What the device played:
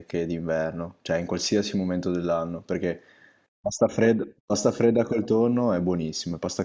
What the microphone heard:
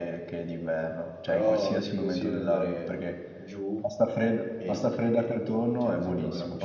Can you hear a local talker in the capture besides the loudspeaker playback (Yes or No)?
Yes